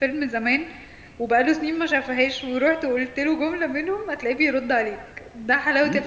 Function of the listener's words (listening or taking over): taking over